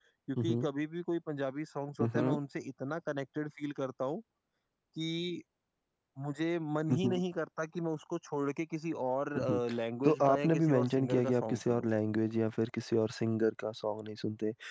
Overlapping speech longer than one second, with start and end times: 10.0-11.9

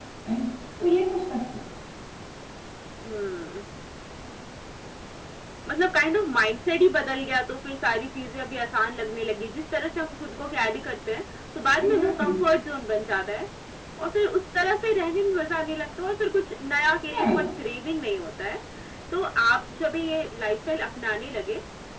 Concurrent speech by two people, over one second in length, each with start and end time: none

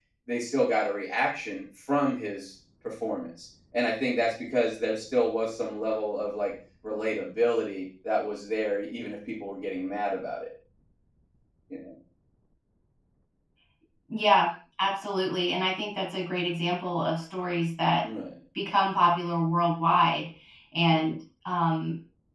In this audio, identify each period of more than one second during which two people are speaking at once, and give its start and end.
none

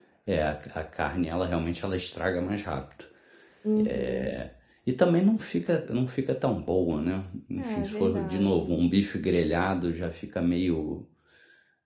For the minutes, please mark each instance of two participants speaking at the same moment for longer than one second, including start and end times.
7.6-8.8

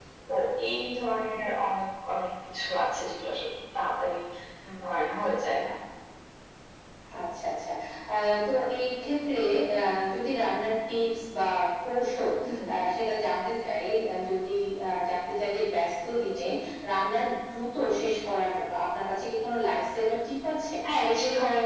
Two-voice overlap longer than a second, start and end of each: none

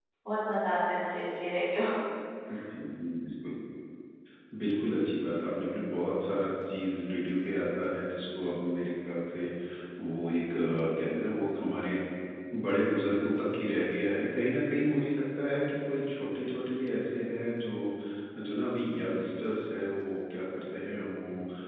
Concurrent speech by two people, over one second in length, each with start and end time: none

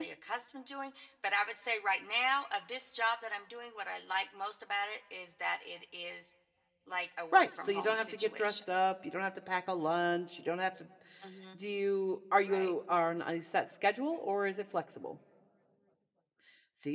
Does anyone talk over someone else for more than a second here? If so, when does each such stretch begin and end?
7.3-8.7

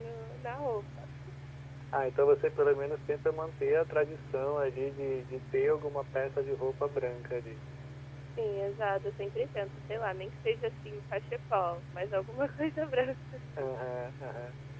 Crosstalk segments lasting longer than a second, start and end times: none

